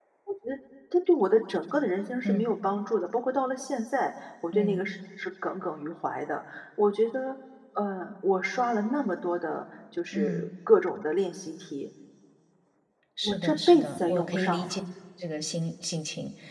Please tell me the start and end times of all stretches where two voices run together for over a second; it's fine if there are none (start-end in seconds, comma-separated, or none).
13.2-14.7